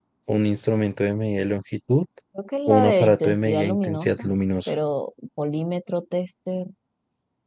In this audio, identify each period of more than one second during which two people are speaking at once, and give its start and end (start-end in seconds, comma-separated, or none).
2.7-4.2